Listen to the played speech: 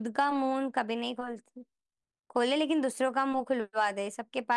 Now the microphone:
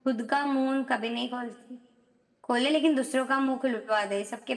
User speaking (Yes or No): No